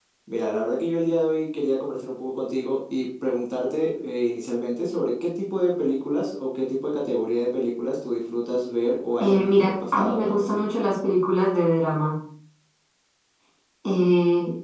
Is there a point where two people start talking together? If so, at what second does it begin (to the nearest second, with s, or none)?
9 s